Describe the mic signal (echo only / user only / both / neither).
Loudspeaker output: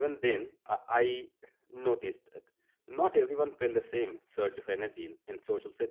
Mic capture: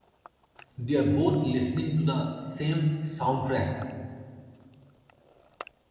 user only